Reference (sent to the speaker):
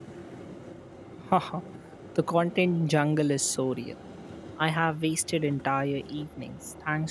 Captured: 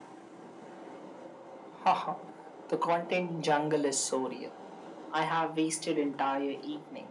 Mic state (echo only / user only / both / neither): echo only